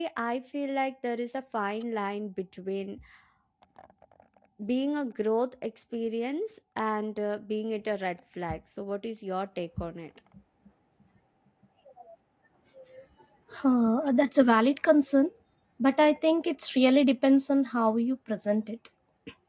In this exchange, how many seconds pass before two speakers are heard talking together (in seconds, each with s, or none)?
none